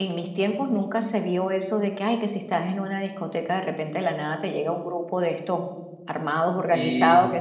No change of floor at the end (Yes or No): Yes